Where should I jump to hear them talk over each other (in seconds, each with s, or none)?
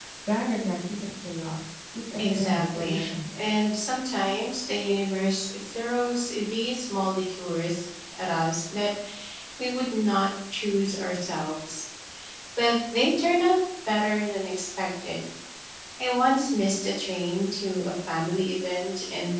2.2 s